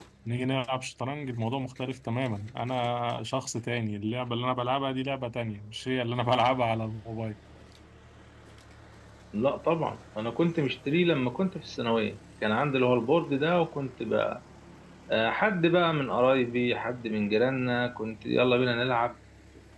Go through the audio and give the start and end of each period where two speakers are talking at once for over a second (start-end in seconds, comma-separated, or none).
none